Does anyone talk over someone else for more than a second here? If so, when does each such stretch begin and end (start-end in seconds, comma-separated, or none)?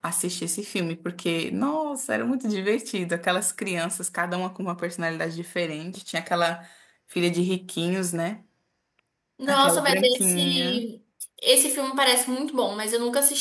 9.5-10.8